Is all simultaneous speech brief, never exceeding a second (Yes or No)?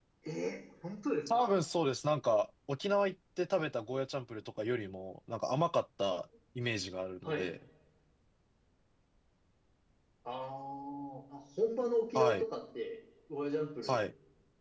Yes